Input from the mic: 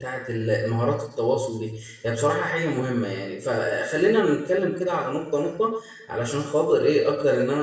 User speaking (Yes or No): Yes